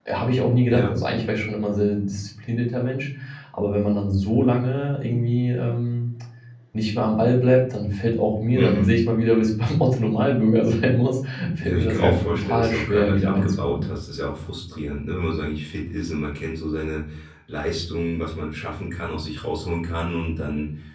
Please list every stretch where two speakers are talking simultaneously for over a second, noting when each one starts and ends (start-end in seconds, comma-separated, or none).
11.6-13.9